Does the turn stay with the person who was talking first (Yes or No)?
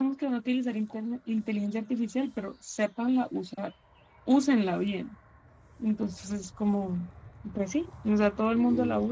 Yes